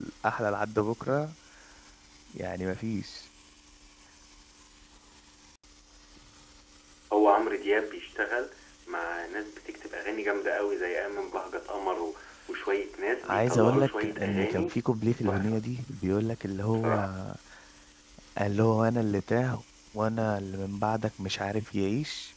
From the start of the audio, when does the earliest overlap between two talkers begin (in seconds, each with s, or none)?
13.2 s